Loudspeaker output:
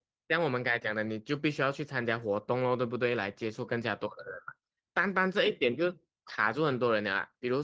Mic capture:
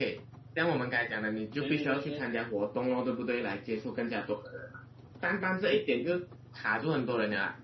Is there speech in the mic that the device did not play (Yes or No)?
Yes